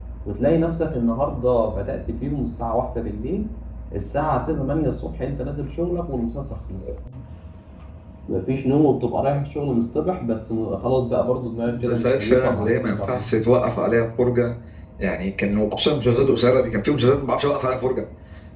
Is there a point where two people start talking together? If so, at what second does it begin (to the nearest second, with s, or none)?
12 s